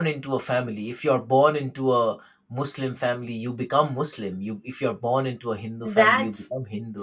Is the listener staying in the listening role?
No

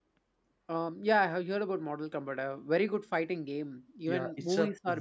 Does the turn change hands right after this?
Yes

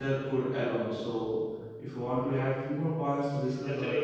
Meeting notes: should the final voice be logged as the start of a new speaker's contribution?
Yes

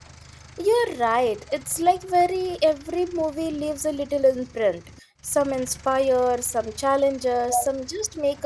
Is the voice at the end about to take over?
No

